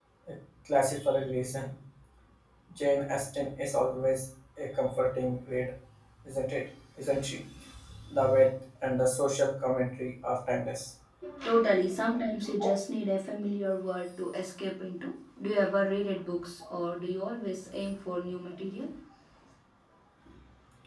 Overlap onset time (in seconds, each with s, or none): none